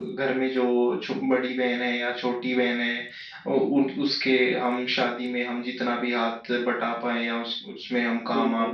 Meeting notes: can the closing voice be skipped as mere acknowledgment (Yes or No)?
No